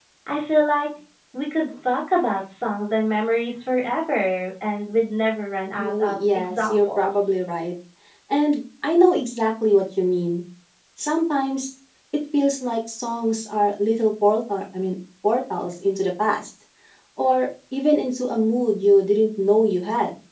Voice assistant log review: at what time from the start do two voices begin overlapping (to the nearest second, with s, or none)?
6 s